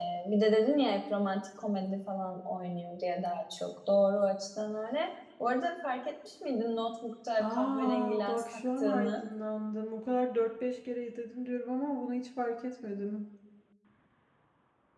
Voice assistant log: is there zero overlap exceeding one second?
No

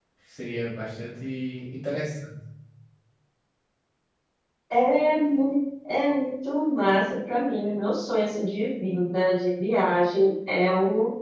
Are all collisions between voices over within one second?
Yes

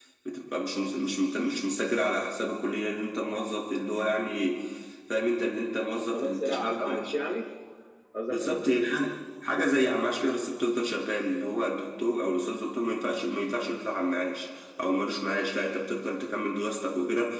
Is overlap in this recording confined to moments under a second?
No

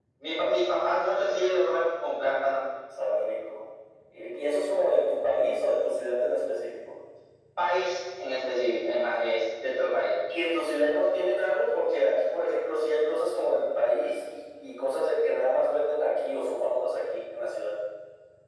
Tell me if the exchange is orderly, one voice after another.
Yes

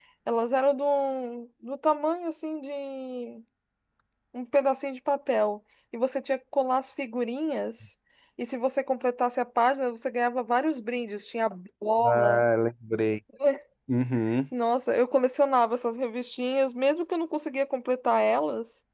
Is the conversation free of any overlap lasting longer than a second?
Yes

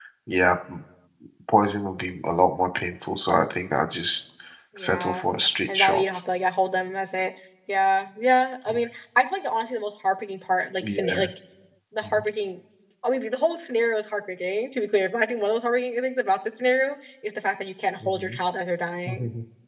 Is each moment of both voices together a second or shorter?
Yes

